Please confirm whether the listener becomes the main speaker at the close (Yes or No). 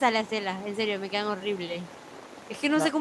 No